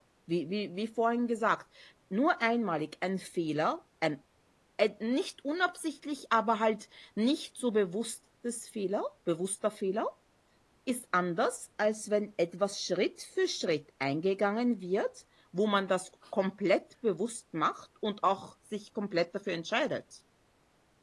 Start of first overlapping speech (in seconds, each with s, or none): none